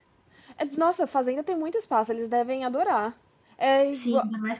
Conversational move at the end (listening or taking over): taking over